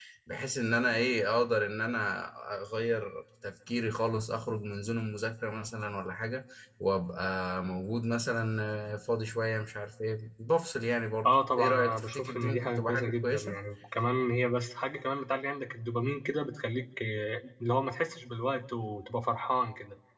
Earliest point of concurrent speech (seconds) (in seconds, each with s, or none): 11.2 s